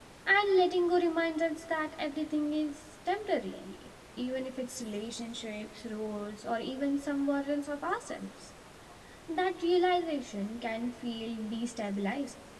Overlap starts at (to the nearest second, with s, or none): none